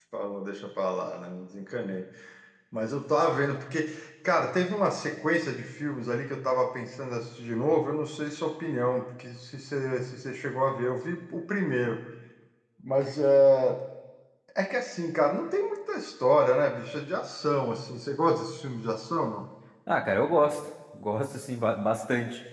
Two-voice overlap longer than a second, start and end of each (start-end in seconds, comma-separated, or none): none